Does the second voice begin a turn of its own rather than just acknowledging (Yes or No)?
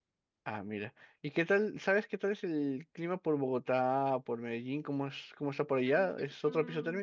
Yes